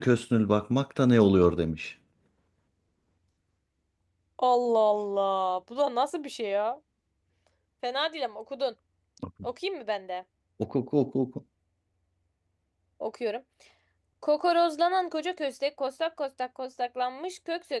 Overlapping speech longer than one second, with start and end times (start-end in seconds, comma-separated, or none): none